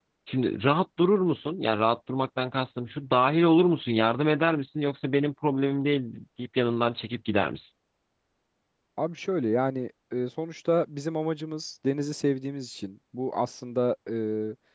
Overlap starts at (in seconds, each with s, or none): none